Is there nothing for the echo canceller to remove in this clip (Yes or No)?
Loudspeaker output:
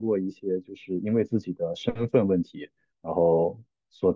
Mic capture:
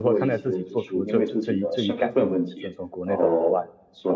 No